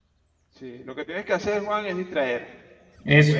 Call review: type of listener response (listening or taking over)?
listening